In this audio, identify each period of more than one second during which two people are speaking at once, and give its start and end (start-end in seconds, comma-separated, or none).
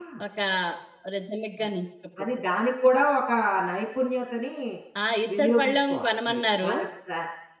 5.4-6.7